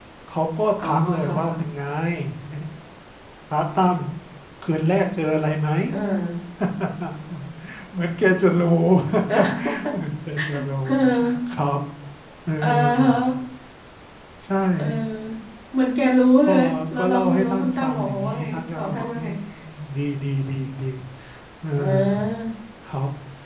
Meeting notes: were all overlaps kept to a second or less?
No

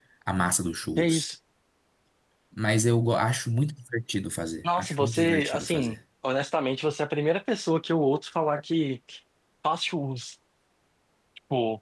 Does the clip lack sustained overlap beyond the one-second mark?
No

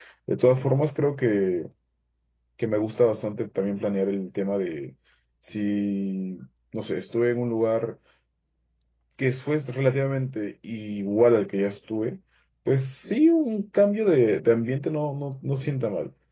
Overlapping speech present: No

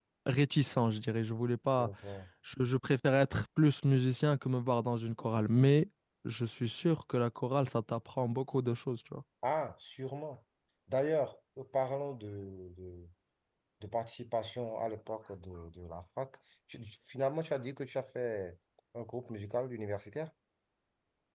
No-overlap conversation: Yes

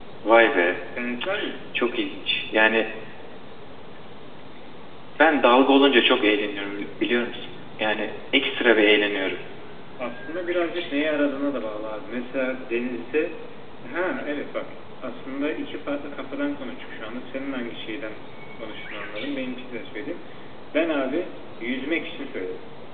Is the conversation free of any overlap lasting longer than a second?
Yes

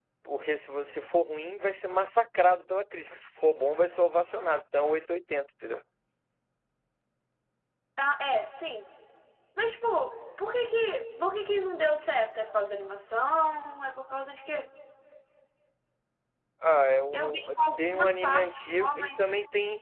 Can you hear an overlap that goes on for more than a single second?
Yes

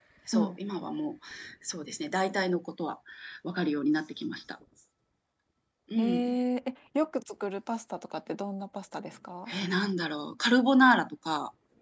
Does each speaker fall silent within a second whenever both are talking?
Yes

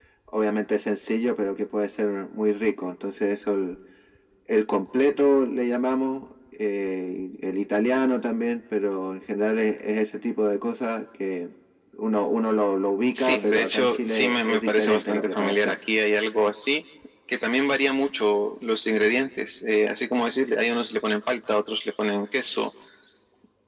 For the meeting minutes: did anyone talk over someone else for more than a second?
Yes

